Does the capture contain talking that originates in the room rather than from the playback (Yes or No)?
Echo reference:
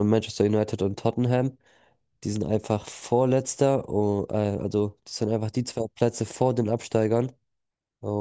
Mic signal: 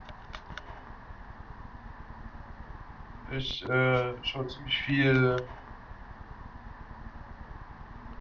Yes